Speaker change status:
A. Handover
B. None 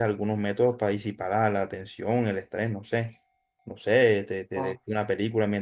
B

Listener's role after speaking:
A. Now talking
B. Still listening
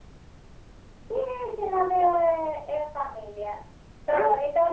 B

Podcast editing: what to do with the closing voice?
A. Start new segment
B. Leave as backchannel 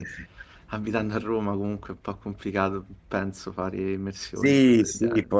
A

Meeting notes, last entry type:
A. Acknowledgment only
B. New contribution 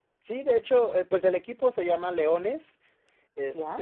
A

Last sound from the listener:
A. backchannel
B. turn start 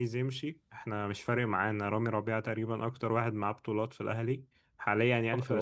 B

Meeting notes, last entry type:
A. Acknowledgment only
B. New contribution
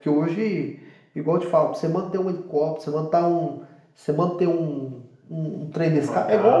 A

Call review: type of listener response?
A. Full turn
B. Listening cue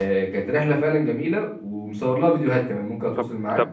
A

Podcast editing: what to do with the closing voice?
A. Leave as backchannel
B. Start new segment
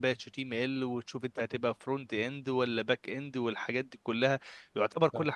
A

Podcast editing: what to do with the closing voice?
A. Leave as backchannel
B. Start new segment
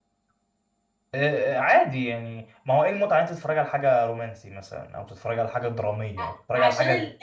B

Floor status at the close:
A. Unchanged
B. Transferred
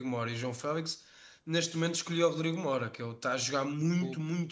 A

